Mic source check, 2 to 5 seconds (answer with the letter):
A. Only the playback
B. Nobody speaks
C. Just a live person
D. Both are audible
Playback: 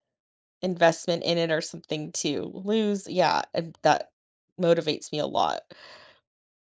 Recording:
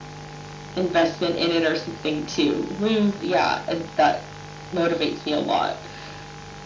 A